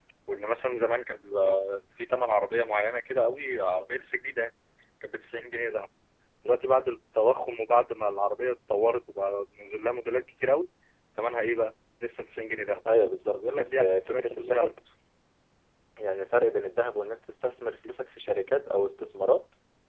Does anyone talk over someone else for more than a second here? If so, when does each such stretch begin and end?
13.3-14.7

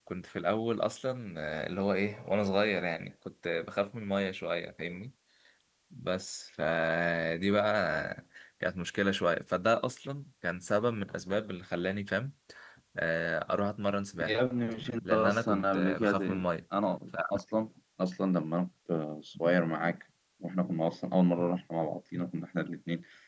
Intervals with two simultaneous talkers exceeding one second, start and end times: 15.1-16.4

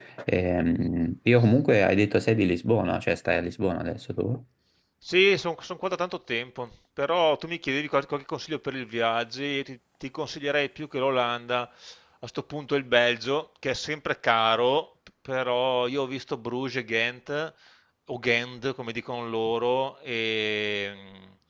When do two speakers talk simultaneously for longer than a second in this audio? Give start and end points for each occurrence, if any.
none

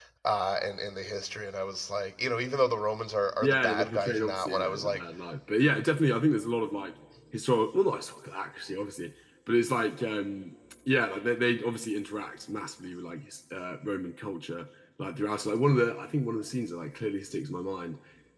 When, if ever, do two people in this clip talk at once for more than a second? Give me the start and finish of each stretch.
3.4-5.0

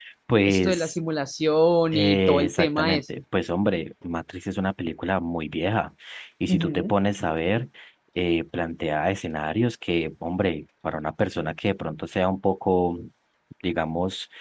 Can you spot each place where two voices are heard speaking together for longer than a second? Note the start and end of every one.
1.9-3.2

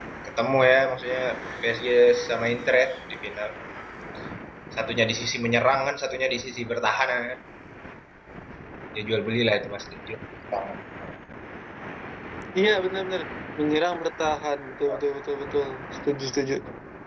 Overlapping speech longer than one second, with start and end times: none

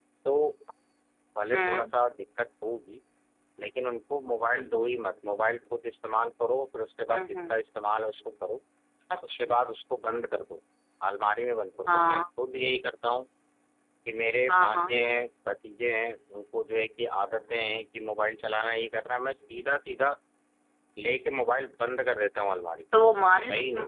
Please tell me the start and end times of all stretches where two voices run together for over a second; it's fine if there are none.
none

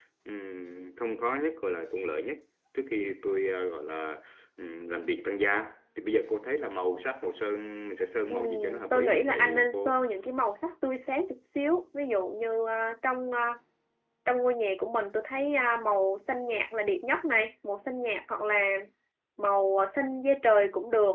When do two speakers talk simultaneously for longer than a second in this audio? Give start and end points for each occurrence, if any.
8.3-10.0

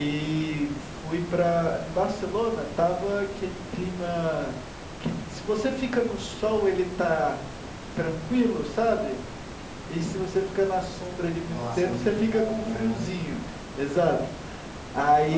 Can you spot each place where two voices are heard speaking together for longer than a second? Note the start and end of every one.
11.5-13.0

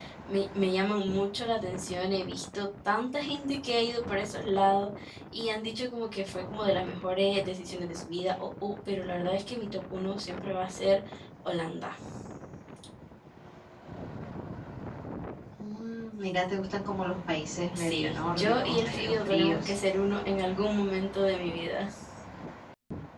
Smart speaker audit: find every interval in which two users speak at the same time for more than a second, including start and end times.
17.7-19.7

